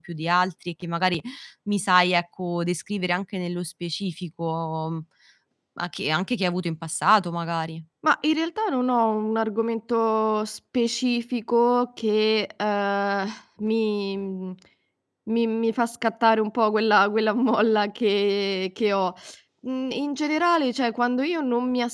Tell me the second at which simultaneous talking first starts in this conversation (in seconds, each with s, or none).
none